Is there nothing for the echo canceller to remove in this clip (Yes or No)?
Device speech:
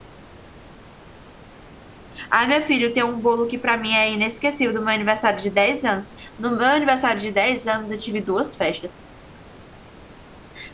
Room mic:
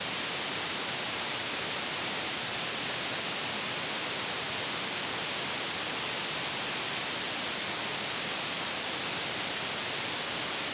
Yes